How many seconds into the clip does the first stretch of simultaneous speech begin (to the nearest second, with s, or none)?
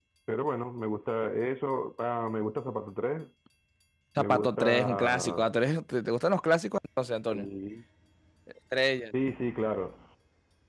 4 s